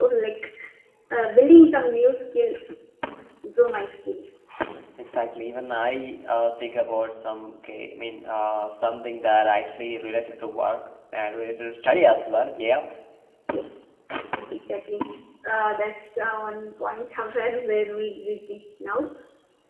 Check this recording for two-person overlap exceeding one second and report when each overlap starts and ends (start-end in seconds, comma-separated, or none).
none